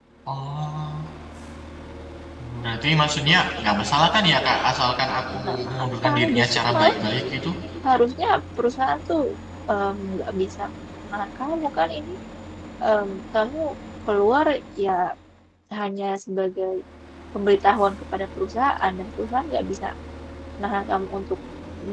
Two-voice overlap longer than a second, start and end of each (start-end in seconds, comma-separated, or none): 5.3-6.9